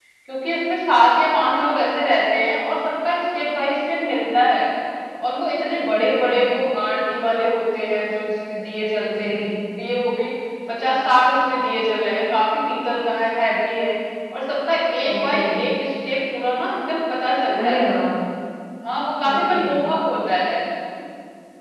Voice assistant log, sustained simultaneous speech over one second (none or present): none